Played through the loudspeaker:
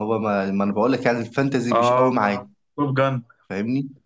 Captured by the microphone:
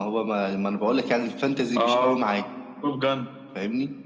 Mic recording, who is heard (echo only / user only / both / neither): echo only